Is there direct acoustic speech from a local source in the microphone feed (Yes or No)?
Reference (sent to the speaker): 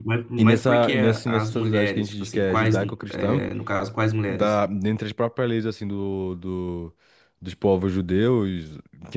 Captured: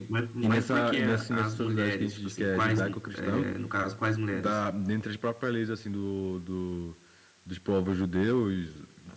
No